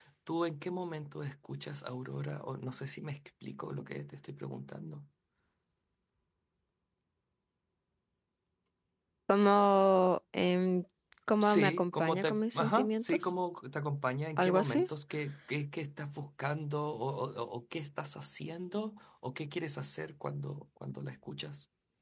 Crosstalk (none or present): present